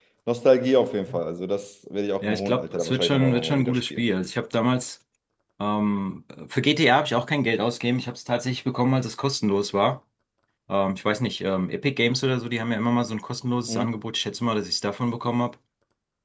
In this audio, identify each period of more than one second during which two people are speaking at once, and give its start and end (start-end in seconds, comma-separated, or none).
2.2-4.0